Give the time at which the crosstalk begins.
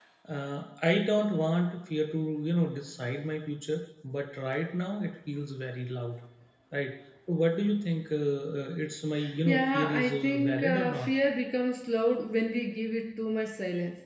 9.4 s

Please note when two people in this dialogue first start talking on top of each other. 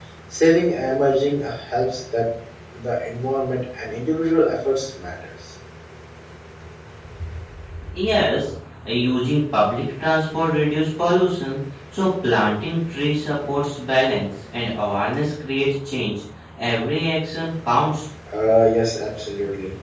none

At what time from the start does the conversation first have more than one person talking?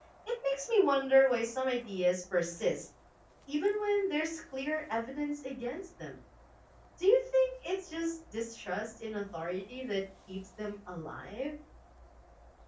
none

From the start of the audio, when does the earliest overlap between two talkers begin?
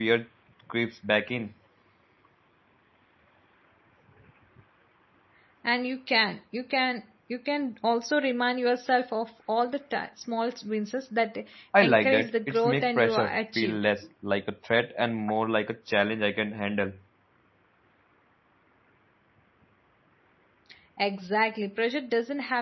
11.8 s

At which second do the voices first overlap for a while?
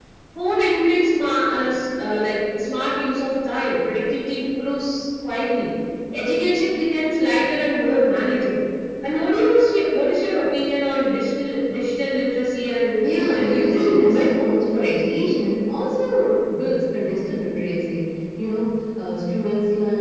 13.0 s

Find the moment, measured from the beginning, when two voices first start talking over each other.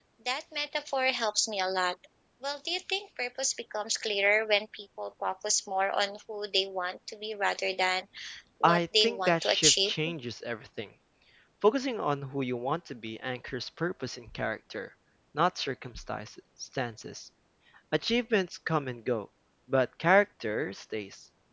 8.6 s

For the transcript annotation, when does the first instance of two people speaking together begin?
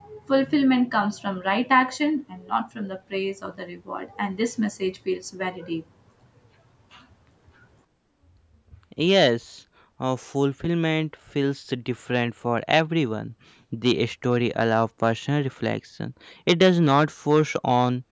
none

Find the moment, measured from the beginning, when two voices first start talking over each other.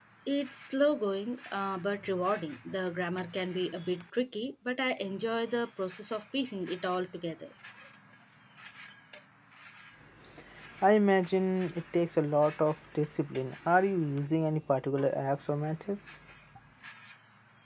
none

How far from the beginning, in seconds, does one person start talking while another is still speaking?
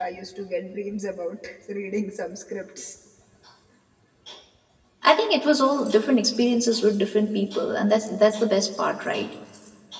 none

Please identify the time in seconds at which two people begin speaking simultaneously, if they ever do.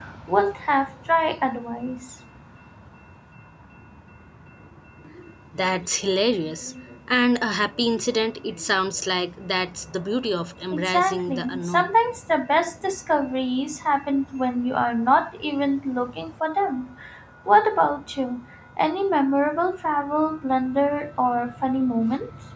10.7 s

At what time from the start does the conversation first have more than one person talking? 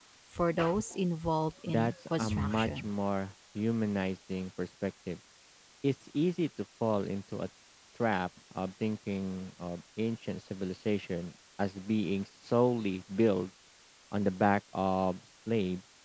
1.7 s

